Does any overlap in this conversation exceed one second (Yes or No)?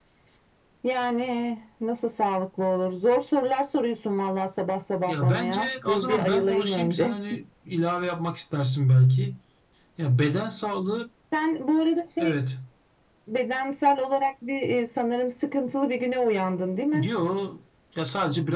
Yes